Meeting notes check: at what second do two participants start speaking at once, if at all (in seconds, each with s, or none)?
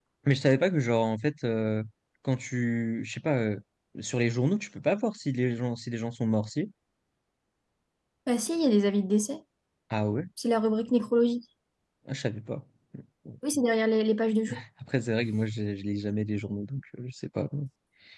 none